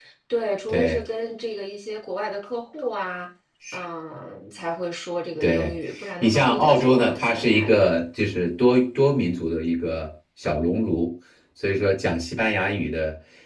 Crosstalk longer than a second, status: present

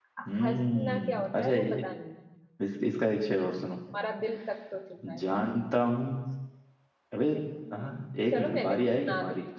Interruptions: present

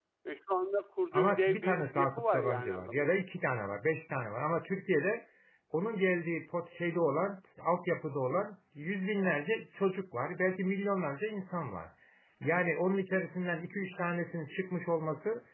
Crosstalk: present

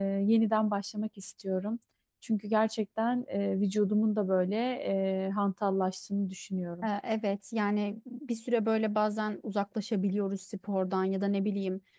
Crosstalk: none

